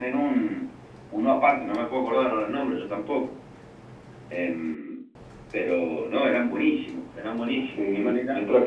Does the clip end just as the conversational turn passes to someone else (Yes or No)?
Yes